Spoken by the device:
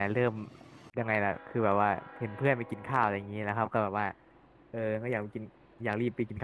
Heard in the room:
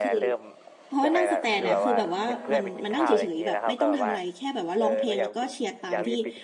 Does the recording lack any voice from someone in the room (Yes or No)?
No